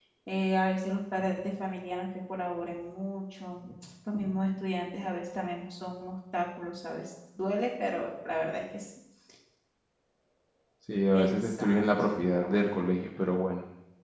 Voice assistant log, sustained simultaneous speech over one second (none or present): present